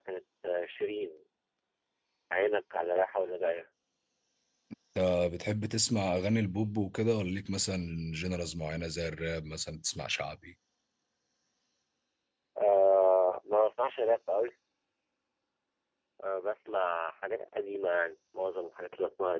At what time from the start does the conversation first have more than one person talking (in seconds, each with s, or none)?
none